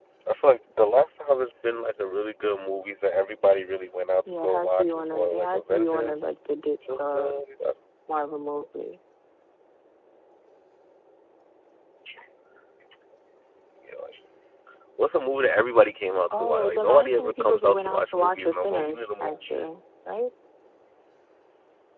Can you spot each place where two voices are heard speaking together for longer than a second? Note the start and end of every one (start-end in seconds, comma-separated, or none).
4.3-6.2, 16.3-19.7